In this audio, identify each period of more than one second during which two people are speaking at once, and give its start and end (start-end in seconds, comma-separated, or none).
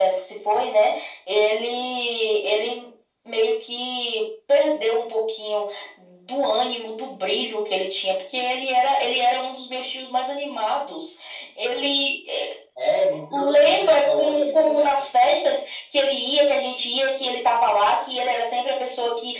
13.3-14.9